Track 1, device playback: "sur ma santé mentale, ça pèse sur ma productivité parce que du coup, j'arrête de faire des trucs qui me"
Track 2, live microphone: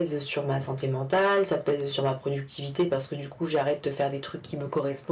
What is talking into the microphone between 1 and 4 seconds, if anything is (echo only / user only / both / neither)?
echo only